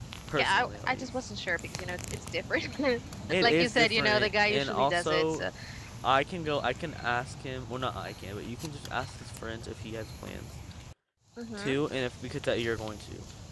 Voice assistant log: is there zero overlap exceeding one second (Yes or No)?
No